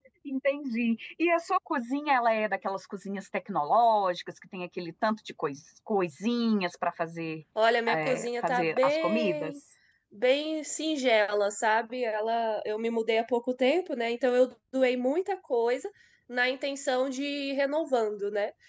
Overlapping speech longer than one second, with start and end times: 7.9-9.5

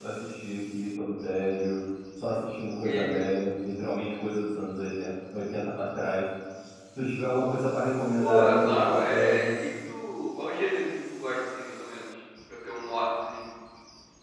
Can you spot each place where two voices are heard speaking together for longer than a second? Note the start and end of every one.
8.2-9.5

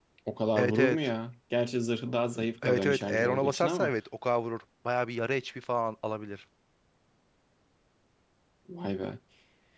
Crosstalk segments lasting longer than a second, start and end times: 2.6-3.9

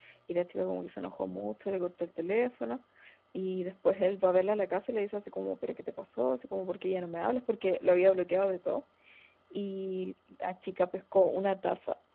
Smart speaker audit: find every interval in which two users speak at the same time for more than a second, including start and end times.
none

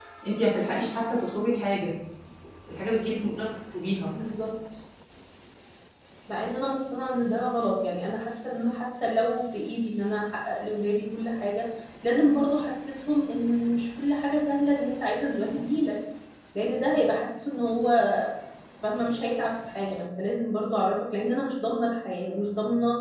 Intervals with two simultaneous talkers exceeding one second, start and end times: none

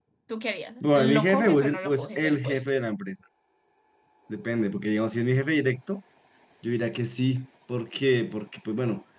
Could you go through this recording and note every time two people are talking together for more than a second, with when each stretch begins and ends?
1.0-2.7

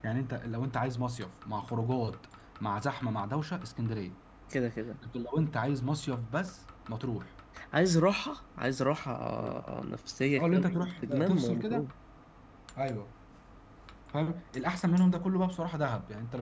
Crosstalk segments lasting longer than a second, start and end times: 10.4-11.8

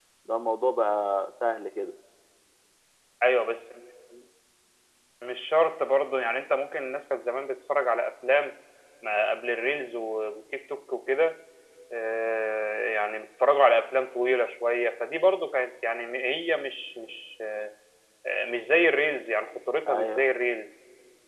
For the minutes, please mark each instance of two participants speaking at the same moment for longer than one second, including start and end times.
none

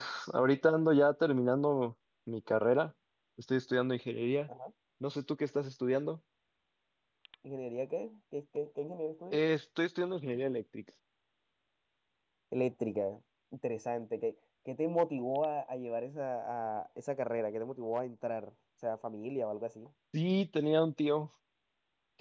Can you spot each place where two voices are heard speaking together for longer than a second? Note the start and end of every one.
none

